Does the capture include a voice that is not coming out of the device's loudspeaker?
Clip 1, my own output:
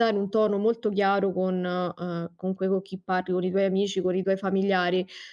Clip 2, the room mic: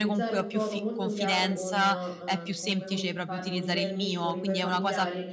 Yes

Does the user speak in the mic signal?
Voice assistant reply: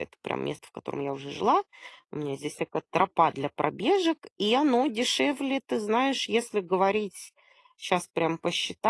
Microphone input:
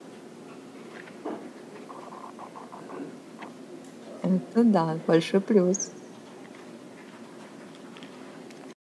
Yes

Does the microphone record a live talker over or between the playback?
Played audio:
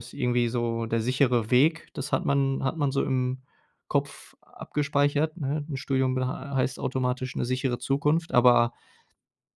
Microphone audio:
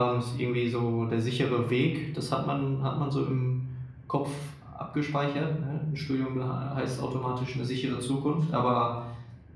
No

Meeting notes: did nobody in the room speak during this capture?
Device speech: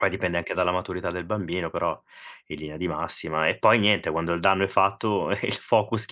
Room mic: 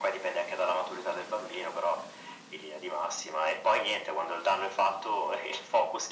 Yes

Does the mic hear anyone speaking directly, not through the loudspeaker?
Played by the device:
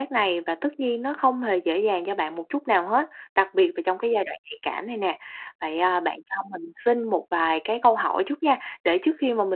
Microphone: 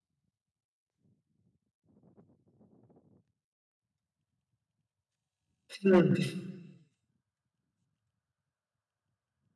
Yes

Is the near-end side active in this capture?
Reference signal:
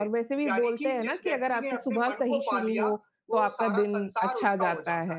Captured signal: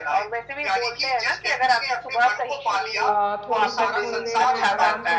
Yes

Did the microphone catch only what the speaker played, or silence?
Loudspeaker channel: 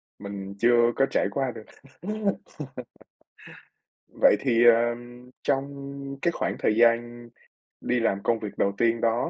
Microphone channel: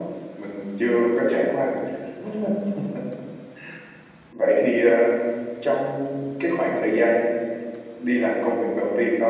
Yes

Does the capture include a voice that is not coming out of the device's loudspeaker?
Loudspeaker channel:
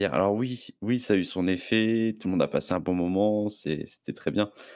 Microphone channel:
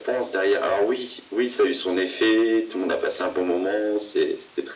No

